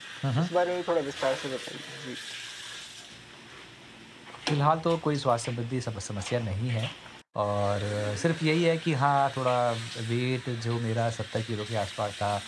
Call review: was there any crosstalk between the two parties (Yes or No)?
No